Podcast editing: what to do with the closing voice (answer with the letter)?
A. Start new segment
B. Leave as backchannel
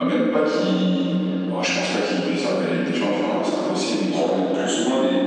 B